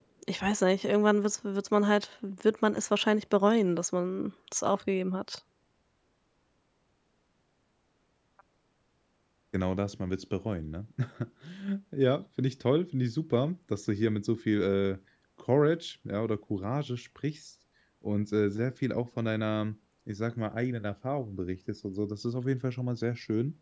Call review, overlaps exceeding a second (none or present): none